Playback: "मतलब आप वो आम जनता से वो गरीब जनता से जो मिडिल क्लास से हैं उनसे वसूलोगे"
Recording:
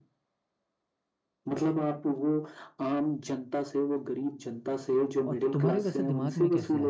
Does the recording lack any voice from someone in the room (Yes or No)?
No